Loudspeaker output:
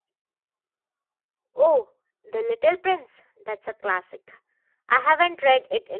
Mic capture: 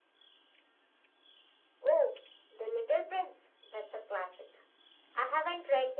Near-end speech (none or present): none